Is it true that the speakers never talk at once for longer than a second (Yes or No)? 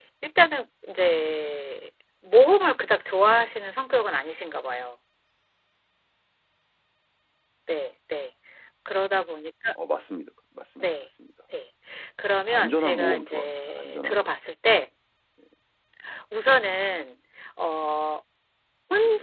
No